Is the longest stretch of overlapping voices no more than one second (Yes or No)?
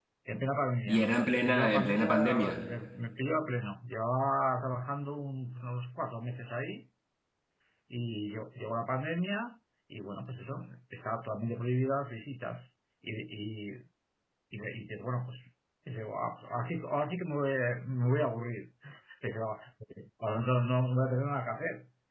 No